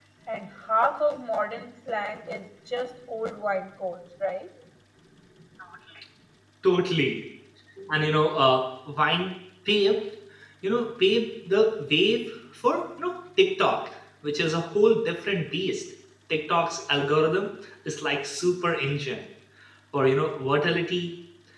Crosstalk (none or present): none